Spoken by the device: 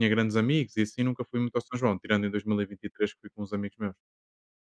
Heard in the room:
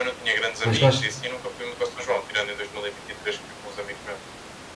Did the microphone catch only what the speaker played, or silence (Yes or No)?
No